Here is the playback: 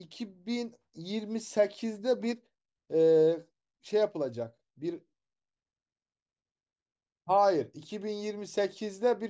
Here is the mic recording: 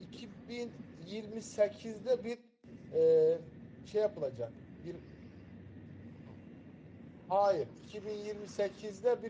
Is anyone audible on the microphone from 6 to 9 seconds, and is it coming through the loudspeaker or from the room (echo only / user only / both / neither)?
echo only